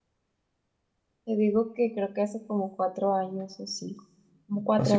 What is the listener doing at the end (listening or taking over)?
taking over